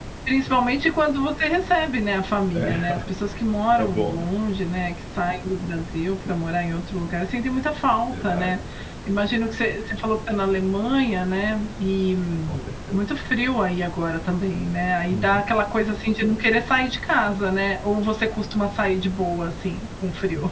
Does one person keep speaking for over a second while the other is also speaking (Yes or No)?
No